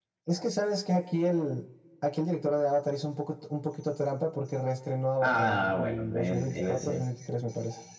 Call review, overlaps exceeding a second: present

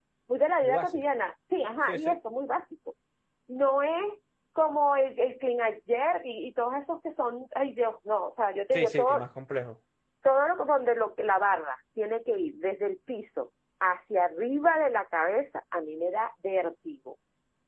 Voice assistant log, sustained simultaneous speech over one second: none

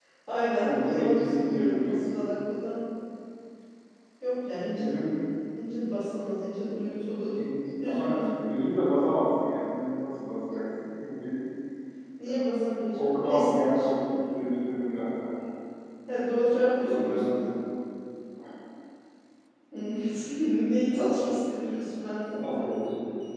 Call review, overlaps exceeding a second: present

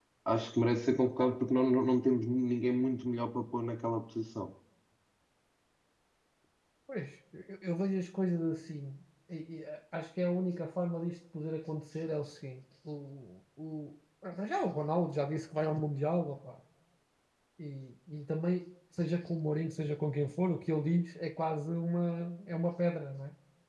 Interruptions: none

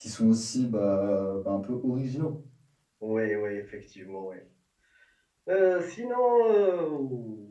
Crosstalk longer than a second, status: none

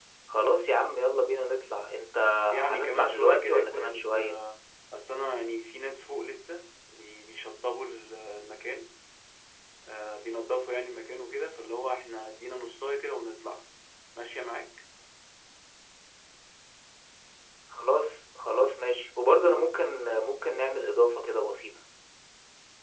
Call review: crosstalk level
present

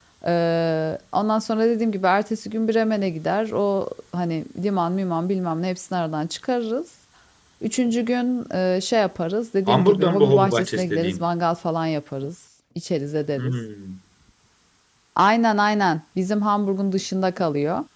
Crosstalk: present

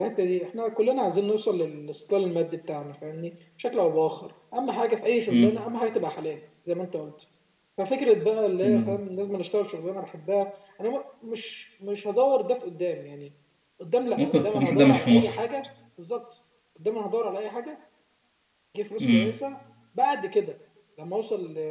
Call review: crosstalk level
present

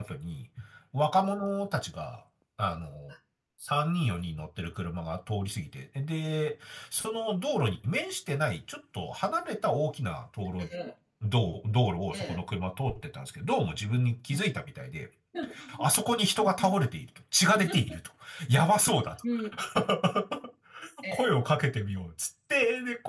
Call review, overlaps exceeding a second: none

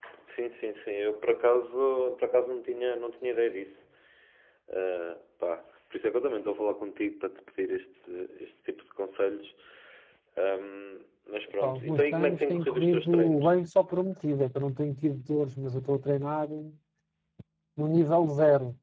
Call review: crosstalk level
present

